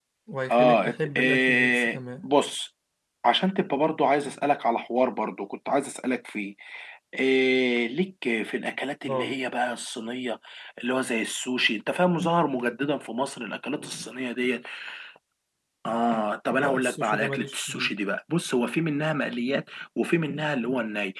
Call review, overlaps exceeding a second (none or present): present